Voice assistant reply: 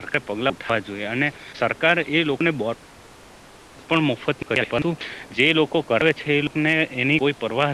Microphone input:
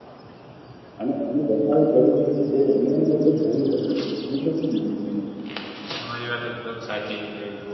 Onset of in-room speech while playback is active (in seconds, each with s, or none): 1.0 s